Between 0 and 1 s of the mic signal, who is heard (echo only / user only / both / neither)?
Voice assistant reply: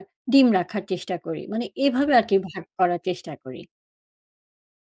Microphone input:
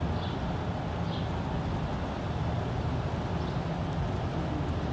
neither